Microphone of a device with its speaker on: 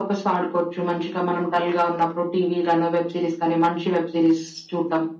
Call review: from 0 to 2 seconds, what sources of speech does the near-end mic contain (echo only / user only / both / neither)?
echo only